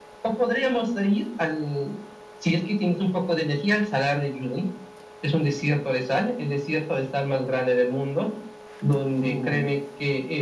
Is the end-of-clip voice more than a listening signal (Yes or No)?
No